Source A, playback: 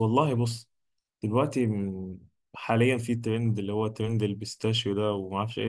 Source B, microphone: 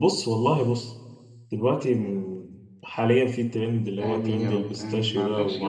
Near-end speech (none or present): present